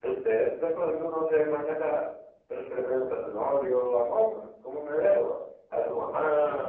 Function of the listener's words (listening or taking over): listening